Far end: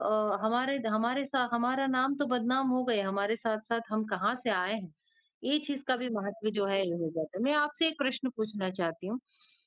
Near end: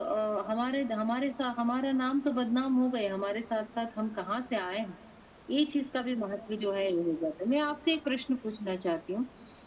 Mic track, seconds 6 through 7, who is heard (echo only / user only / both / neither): echo only